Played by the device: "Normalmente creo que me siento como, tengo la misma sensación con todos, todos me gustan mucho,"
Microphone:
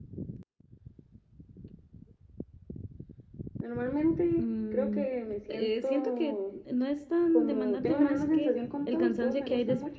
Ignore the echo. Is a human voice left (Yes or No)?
Yes